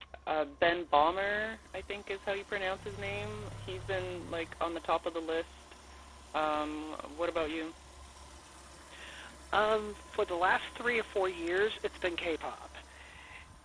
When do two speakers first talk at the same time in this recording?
none

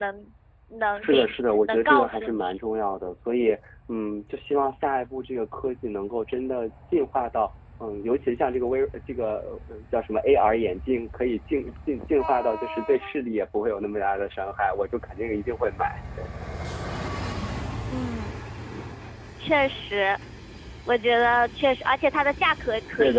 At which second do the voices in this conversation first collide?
1.0 s

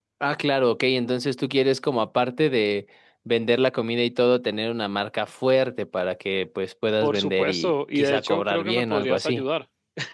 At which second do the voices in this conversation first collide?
7.0 s

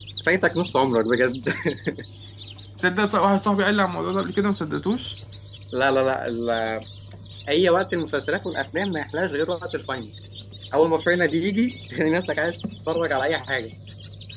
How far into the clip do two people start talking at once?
none

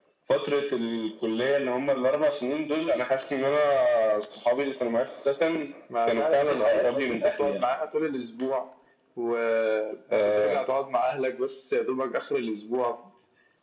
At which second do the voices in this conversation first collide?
6.1 s

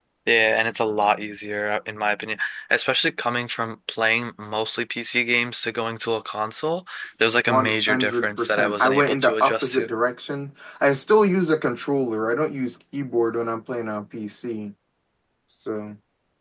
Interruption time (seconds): 7.5 s

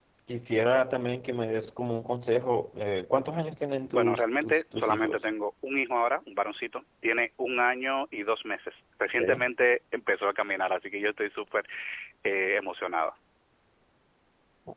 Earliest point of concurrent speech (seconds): 3.9 s

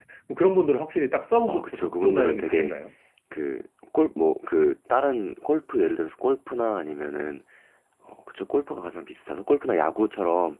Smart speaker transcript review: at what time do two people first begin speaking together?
1.4 s

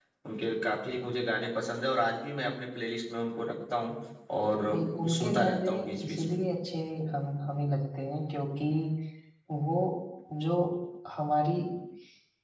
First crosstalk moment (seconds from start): 5.2 s

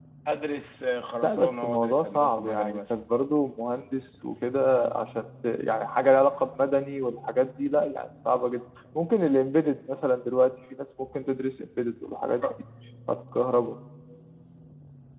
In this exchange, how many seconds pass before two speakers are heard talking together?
1.2 s

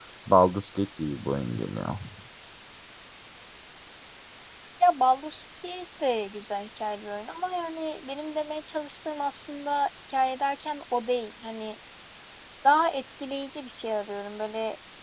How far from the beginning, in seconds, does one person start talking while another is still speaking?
none

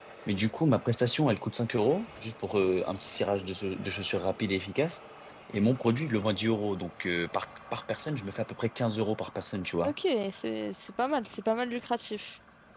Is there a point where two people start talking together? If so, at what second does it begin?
none

